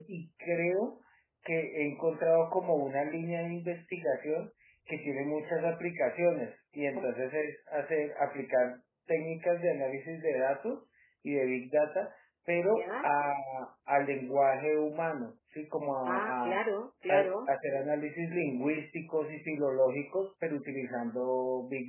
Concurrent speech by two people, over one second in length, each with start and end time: none

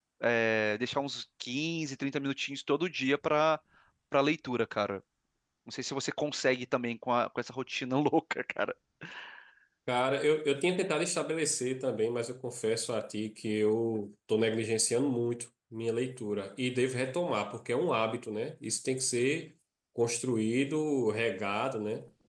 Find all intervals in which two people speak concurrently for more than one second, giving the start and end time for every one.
none

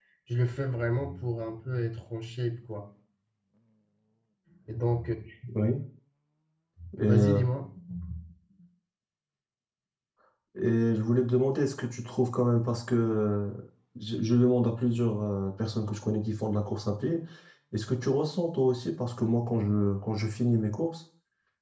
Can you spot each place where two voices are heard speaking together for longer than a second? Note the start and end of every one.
none

